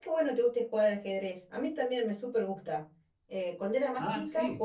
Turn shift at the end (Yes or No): No